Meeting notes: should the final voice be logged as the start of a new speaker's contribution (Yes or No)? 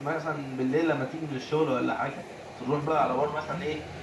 No